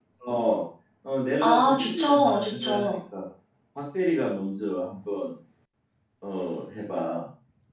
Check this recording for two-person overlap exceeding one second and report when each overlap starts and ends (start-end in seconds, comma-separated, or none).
1.4-3.0